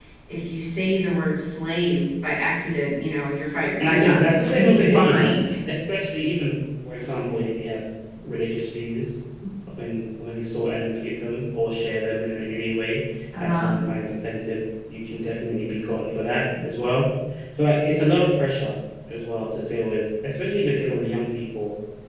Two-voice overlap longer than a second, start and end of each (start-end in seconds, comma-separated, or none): 3.8-5.4